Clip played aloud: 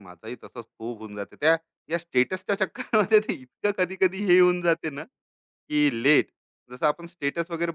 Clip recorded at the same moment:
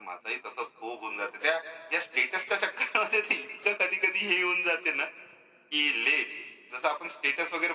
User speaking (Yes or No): No